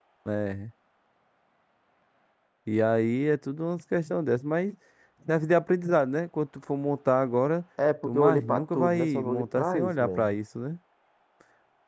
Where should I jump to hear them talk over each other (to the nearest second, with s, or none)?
8 s